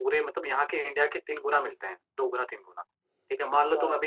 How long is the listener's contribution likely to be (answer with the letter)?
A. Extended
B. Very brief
B